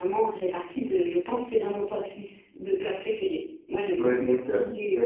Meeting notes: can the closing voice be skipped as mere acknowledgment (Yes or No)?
No